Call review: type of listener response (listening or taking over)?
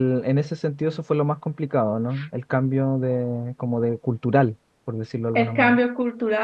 taking over